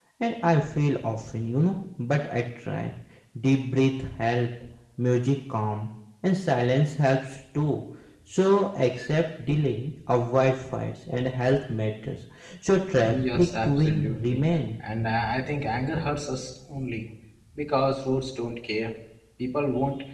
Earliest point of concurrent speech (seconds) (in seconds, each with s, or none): 12.9 s